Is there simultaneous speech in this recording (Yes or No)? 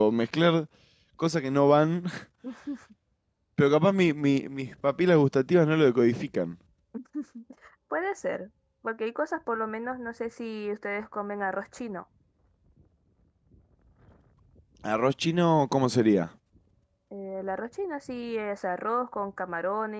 No